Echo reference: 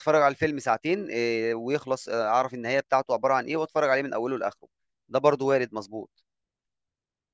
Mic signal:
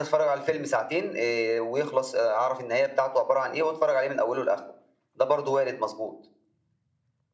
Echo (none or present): present